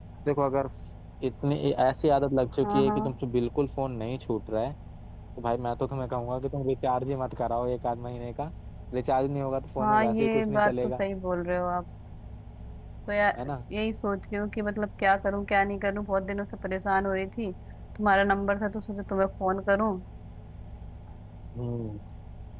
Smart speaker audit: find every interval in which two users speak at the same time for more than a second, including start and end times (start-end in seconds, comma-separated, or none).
9.8-11.0